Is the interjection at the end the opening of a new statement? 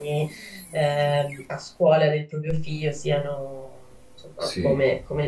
No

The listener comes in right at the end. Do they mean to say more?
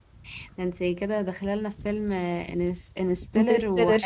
No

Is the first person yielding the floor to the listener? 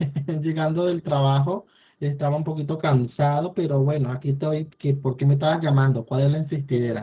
Yes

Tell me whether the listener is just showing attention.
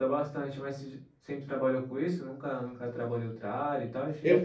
Yes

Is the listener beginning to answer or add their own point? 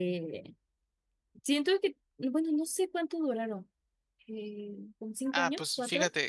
Yes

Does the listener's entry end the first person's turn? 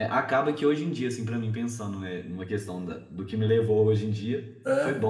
No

